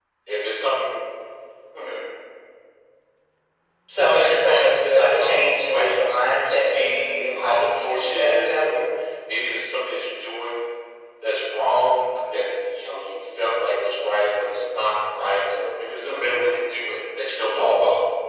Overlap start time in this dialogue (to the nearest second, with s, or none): 4 s